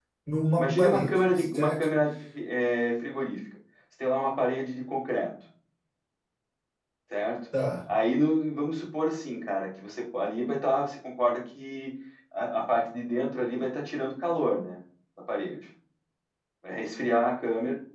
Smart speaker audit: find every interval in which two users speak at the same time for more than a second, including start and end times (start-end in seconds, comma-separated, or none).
0.6-1.9